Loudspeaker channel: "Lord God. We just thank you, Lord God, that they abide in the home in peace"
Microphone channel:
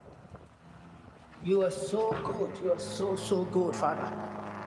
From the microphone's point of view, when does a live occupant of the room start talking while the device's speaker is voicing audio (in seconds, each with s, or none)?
1.4 s